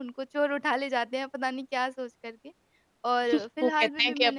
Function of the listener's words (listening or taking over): taking over